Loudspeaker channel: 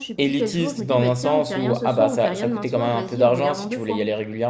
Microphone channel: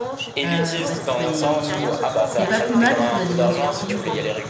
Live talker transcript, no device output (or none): euh, bah, c'est c'est pas plus mal parce qu'on a des bonnes surprises. euh.